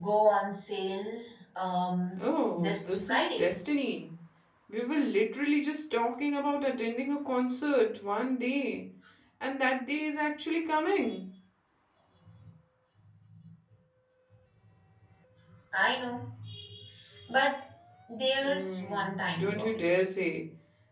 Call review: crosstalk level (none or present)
present